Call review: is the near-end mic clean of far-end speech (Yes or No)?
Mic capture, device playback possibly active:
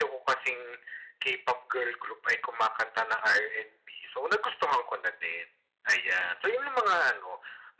No